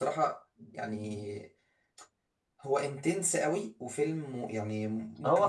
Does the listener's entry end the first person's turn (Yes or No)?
Yes